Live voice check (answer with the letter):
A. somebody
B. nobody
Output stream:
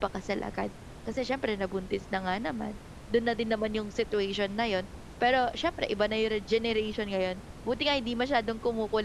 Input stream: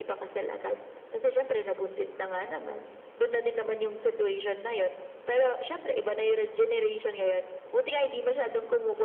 B